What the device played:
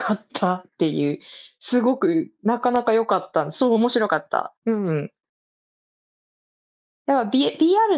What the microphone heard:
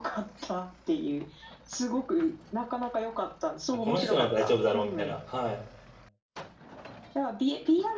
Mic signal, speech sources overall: both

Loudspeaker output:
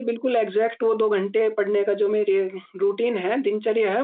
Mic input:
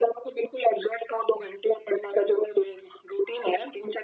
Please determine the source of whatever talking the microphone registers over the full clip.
echo only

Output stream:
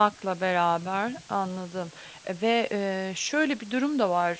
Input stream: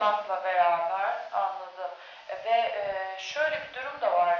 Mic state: echo only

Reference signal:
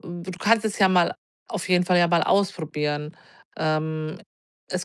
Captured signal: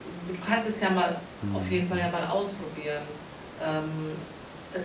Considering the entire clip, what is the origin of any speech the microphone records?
both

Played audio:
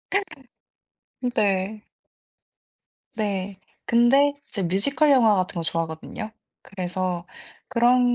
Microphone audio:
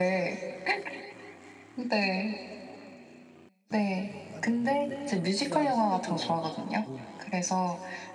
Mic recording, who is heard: both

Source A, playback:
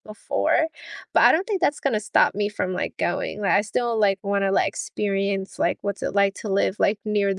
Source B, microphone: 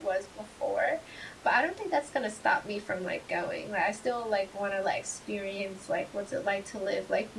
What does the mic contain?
echo only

